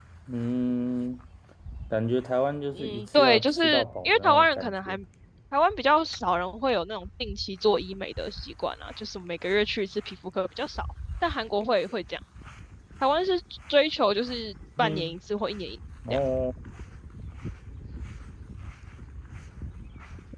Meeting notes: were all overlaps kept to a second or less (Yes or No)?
No